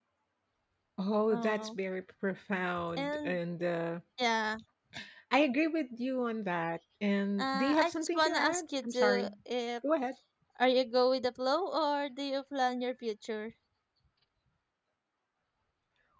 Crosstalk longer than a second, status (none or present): present